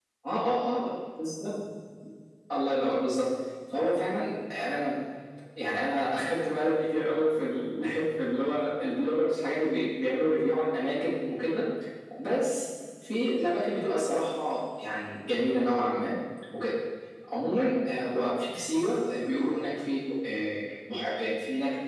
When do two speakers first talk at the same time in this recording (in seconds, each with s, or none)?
none